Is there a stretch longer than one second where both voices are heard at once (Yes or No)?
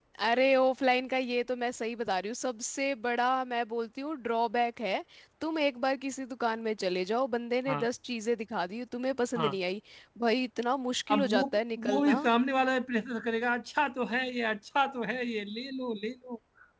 No